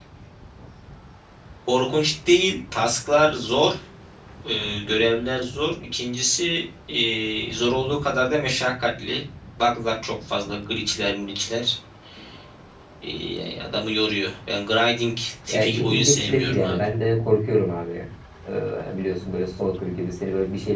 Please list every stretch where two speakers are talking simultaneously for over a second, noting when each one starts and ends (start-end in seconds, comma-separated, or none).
15.5-16.8